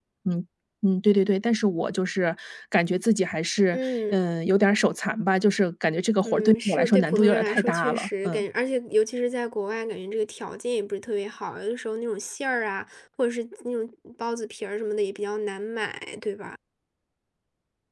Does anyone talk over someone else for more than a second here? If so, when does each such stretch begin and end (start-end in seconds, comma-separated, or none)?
6.2-8.4